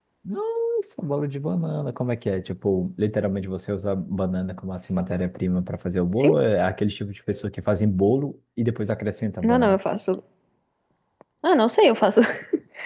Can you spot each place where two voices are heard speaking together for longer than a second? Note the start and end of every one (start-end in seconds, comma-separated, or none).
none